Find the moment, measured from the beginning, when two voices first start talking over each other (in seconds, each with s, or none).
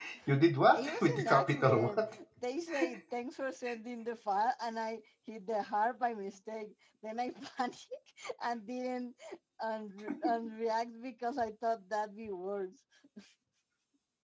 0.8 s